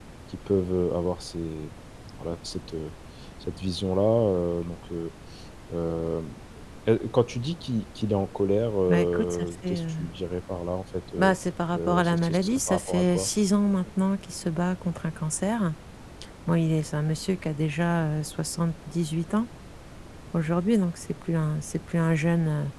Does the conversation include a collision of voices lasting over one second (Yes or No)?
Yes